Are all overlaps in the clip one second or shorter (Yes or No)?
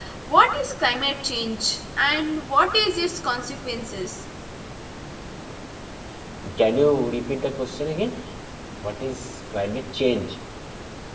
Yes